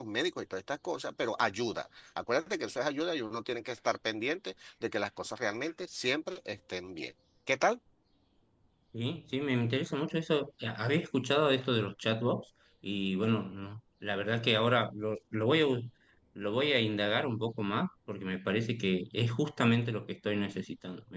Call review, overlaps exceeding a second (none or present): none